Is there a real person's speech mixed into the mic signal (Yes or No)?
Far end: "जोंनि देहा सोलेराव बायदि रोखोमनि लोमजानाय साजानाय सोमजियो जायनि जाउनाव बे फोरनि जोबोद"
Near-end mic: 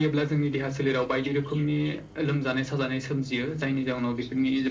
No